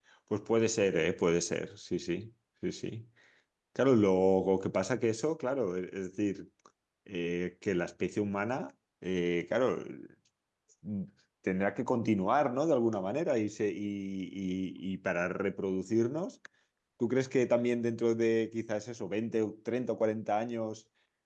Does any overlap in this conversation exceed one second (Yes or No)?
No